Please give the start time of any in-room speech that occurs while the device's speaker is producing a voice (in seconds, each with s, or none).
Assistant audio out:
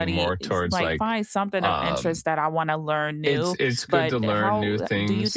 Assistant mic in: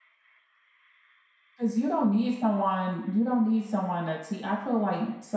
1.6 s